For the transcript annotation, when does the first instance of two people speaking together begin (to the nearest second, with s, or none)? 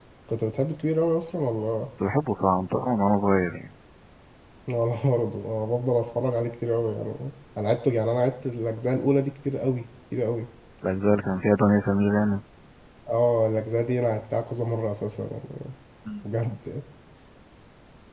none